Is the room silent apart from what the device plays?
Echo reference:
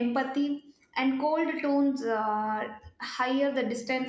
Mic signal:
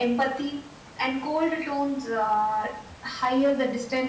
Yes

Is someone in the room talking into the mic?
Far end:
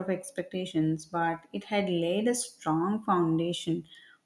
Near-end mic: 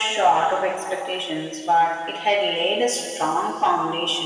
No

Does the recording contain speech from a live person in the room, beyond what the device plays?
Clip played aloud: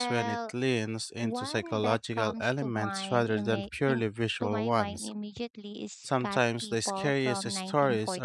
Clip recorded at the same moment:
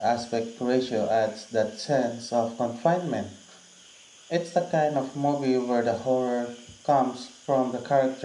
Yes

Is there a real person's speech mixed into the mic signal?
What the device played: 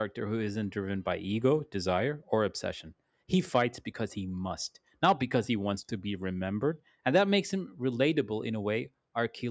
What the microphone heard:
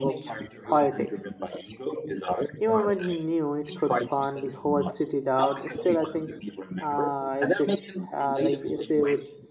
Yes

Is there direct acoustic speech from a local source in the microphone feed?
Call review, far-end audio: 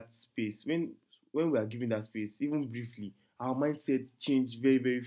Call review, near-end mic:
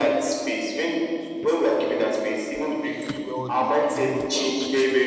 Yes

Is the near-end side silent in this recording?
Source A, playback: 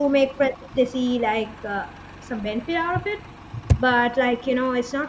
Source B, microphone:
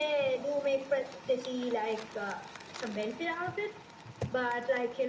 Yes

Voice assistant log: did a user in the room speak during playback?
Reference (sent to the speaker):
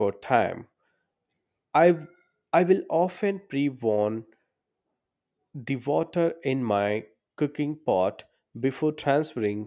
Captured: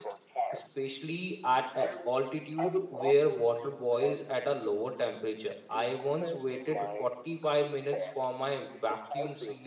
Yes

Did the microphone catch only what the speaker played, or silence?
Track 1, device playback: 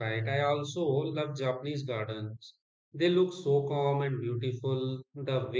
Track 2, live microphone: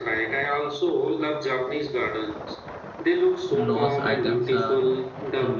No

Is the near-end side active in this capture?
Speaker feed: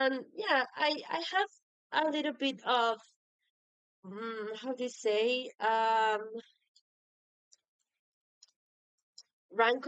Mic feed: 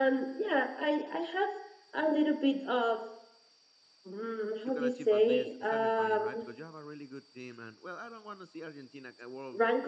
Yes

